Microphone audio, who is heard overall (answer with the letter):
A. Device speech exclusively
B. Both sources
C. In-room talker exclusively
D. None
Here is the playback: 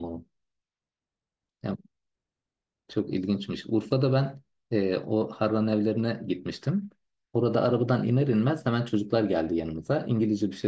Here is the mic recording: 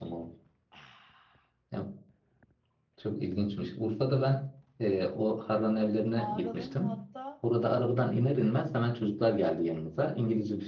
B